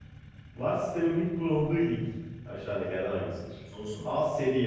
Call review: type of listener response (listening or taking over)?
listening